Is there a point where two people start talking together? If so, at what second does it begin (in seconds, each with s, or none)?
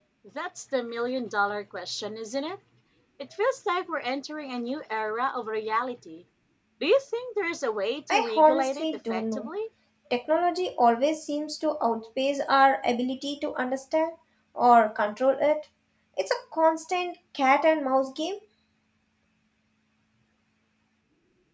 8.1 s